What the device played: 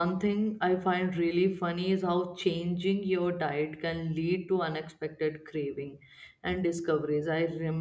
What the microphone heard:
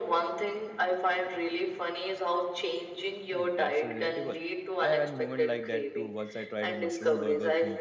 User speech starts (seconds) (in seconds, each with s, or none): 3.3 s